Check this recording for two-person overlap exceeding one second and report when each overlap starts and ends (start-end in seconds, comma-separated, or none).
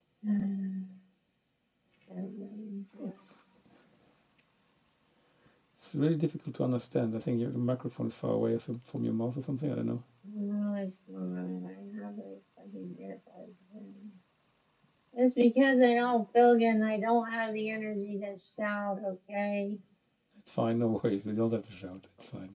none